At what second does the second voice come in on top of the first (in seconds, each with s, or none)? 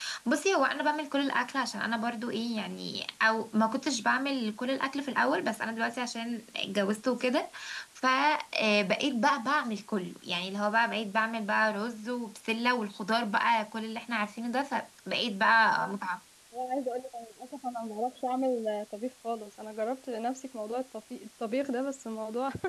none